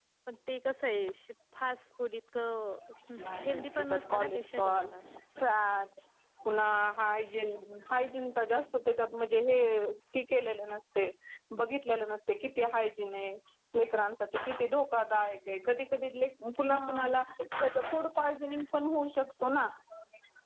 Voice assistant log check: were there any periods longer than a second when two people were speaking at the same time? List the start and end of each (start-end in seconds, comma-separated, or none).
3.4-4.9